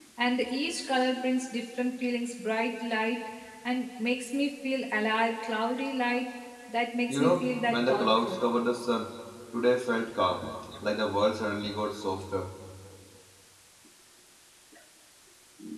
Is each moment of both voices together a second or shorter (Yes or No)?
No